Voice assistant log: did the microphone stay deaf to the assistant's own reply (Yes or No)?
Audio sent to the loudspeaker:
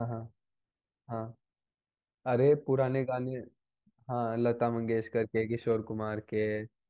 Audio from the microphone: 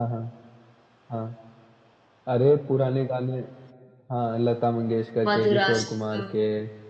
No